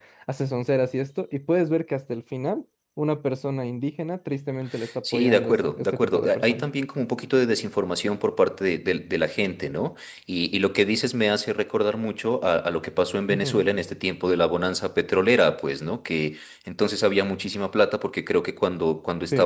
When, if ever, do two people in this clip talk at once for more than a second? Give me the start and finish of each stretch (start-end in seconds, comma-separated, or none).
5.0-6.6